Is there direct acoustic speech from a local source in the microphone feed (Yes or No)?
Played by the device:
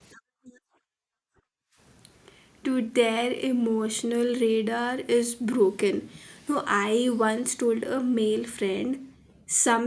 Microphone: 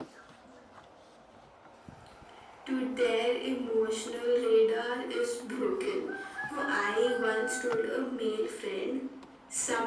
No